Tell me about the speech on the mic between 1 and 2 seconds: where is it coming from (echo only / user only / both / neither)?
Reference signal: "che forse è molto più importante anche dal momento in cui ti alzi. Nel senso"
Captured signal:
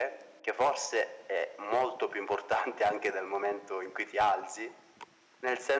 echo only